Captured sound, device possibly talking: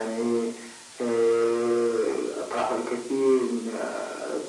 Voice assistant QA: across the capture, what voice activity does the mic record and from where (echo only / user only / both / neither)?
echo only